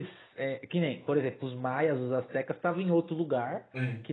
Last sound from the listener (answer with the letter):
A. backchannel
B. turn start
A